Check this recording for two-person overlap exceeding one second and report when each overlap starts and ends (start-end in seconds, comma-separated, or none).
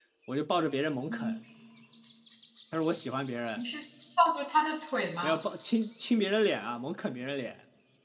none